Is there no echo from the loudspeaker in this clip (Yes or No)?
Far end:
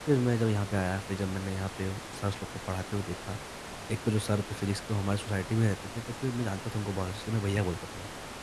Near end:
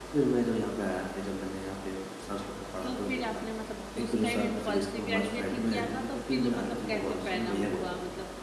No